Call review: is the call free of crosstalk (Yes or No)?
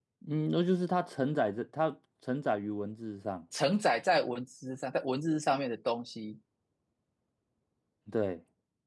Yes